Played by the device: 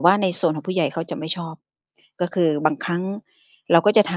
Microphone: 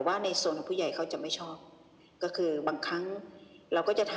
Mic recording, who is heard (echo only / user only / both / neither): echo only